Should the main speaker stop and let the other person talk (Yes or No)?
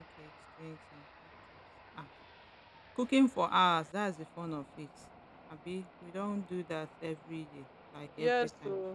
Yes